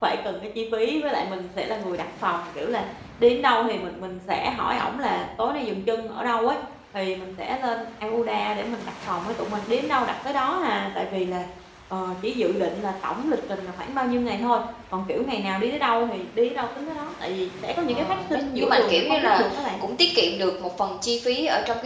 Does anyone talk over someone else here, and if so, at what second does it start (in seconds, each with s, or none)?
17.9 s